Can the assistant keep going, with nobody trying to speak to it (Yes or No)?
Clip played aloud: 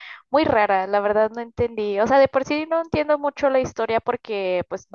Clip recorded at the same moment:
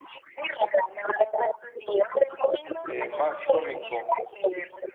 No